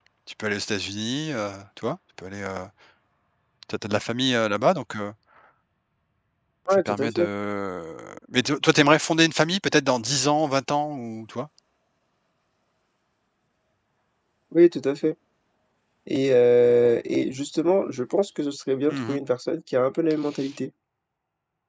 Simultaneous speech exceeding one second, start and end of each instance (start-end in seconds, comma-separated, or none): none